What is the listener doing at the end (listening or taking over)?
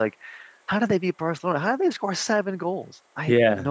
taking over